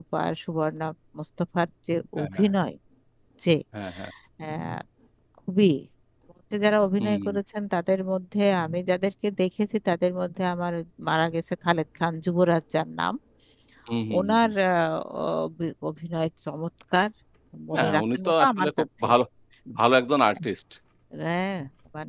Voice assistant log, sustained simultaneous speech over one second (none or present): present